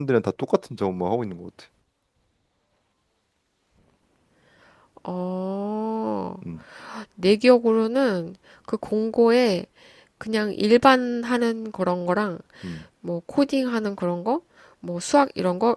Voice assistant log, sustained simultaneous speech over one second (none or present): none